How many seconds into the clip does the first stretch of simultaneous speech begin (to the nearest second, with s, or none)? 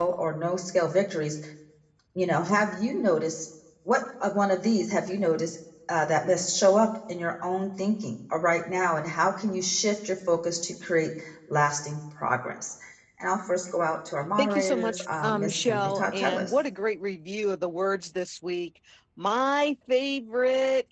14 s